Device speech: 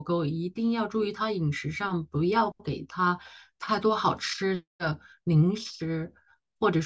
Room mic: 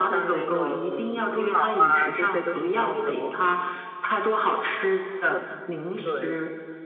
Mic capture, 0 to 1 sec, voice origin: both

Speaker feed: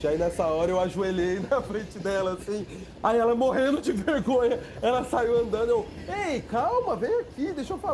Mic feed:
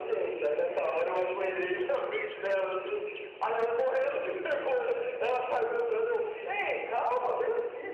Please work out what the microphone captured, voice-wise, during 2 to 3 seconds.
echo only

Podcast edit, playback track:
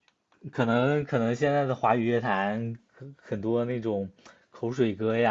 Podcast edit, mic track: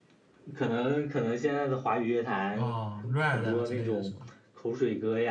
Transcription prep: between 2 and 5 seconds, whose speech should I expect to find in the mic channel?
both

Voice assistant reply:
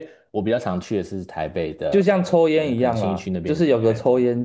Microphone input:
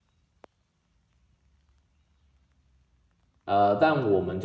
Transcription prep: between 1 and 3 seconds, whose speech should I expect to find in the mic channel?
neither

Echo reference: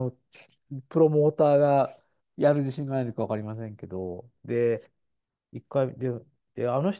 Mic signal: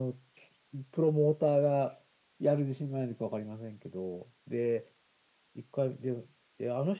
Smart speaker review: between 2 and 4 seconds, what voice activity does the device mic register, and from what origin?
echo only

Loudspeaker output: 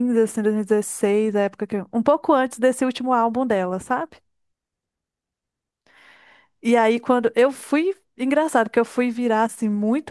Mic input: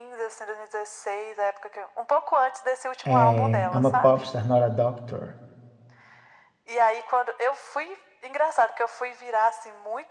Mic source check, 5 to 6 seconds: user only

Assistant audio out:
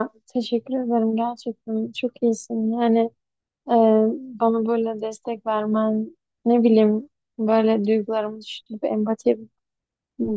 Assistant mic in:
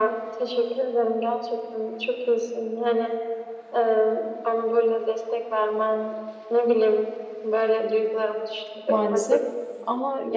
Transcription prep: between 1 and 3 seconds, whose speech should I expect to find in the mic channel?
echo only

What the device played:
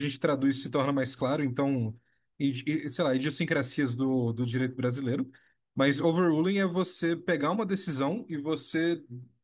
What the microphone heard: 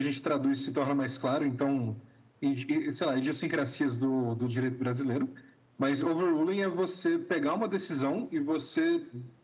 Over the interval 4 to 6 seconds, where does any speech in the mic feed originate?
echo only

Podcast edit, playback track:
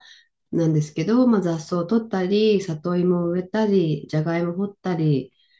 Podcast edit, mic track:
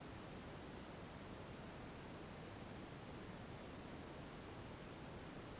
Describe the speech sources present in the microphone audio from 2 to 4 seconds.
neither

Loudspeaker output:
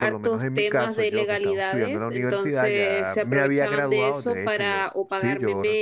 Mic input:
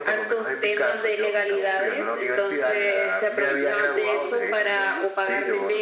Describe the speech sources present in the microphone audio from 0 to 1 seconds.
echo only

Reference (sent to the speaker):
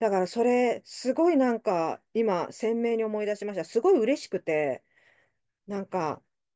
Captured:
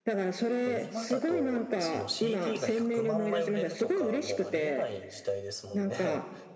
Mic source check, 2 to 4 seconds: both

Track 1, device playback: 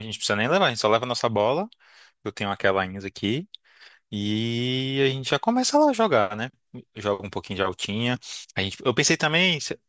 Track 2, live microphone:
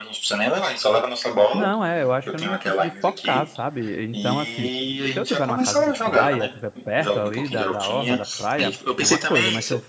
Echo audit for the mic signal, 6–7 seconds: both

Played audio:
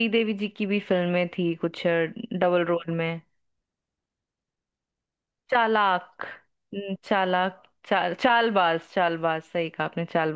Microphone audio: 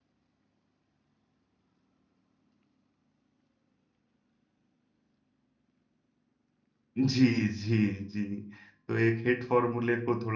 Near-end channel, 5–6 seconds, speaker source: neither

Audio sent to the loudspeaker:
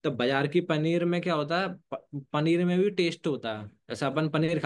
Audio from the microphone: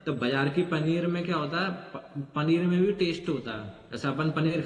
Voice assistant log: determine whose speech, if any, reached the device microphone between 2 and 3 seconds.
echo only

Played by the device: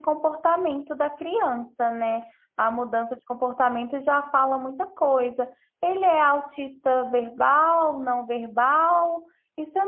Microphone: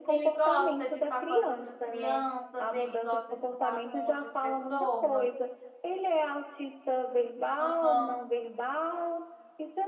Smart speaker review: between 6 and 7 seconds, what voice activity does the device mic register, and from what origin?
echo only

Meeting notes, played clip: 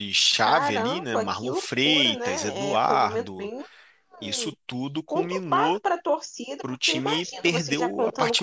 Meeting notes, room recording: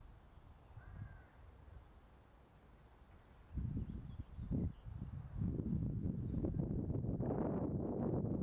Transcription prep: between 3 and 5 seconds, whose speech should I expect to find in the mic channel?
neither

